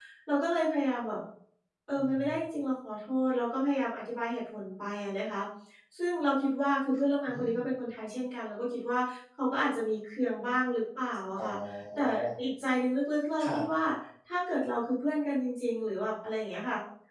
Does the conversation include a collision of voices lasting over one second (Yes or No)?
No